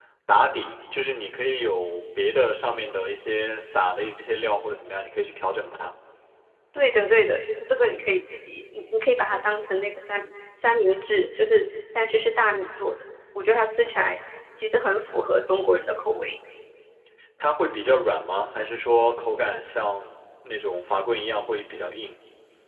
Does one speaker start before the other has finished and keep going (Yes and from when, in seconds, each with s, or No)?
No